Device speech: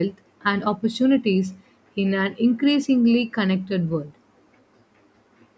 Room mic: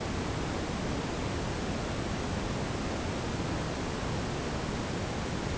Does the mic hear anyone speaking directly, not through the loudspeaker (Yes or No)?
No